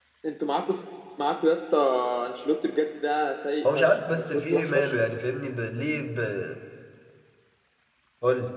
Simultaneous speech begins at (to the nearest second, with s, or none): 4 s